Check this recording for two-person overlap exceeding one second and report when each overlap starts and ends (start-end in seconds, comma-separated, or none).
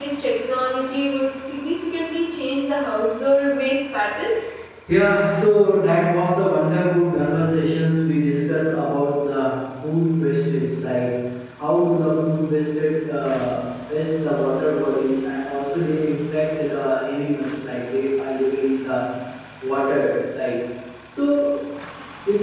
none